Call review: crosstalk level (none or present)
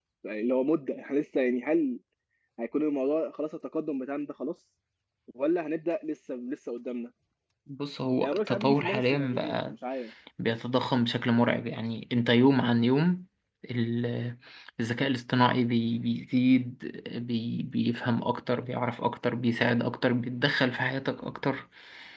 present